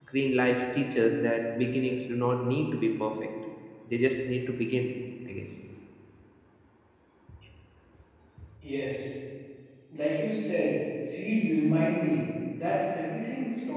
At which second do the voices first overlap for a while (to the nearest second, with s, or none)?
none